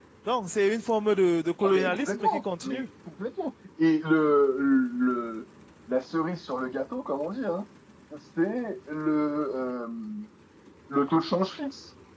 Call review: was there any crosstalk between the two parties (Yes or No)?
Yes